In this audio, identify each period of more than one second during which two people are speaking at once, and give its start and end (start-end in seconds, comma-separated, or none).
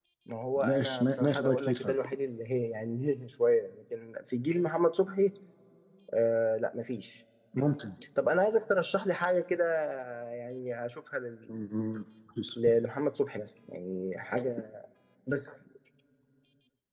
0.6-1.9